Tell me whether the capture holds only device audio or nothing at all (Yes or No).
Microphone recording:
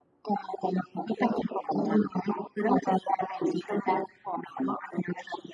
Yes